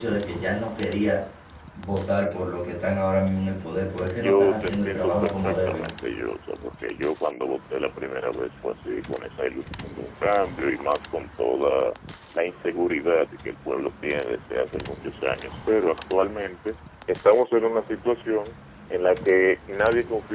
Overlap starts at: 4.2 s

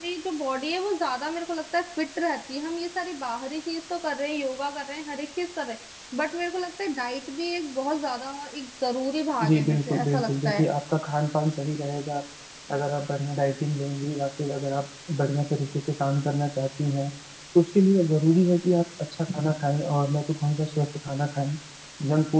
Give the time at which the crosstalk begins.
9.3 s

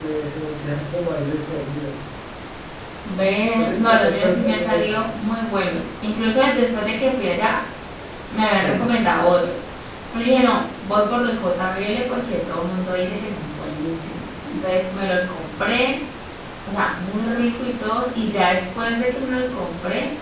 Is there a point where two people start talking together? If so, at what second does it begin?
3.6 s

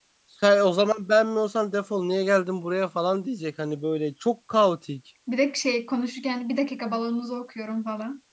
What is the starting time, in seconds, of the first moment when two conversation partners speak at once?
none

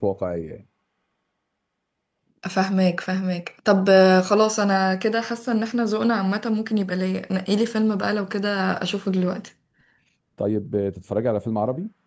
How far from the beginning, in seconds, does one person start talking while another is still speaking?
none

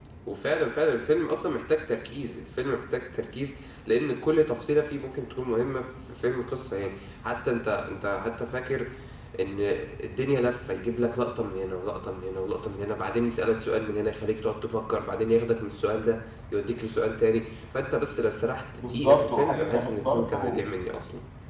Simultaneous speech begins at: 18.8 s

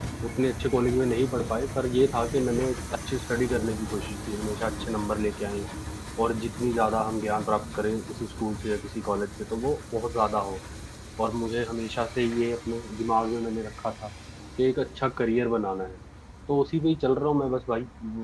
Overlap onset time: none

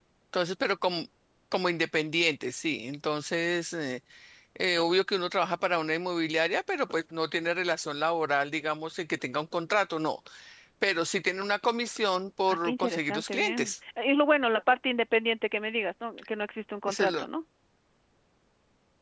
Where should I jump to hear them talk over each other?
12.5 s

